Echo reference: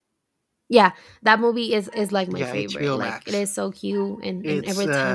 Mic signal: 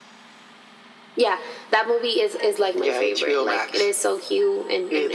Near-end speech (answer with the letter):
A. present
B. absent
B